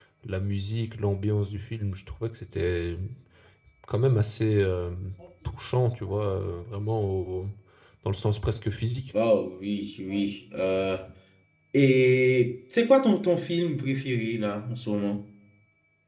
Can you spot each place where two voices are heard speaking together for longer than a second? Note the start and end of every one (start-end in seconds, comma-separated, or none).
none